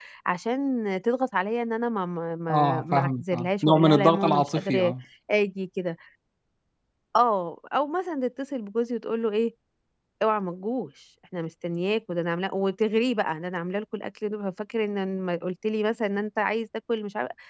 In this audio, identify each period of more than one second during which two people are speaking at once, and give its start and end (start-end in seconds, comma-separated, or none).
2.5-4.9